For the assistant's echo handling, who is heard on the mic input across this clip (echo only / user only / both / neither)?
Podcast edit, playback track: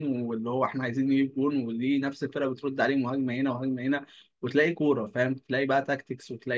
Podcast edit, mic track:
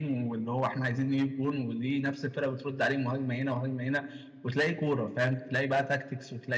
echo only